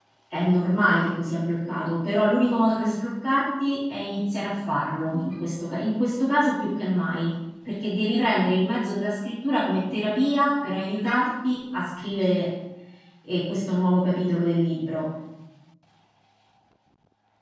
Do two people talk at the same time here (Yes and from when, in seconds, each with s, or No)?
No